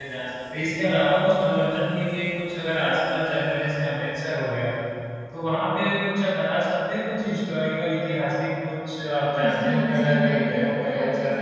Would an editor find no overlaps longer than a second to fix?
No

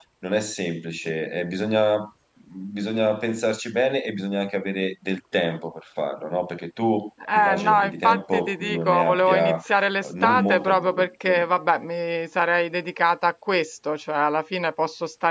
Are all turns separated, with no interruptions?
No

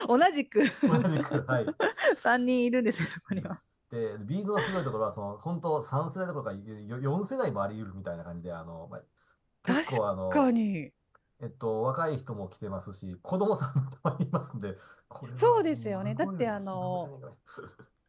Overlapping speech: Yes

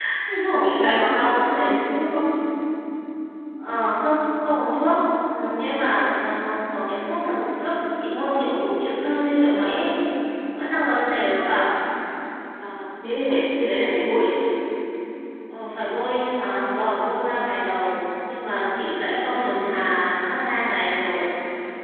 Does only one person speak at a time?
No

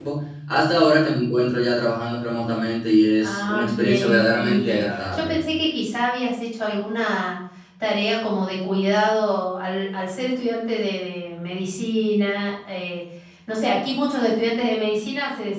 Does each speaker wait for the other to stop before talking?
No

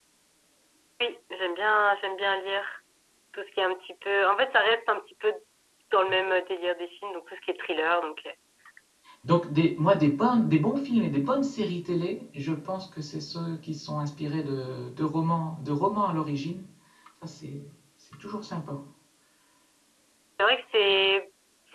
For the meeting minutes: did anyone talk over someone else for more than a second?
No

